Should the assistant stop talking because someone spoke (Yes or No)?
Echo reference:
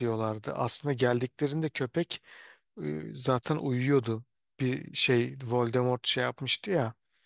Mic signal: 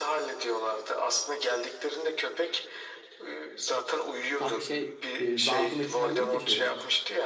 Yes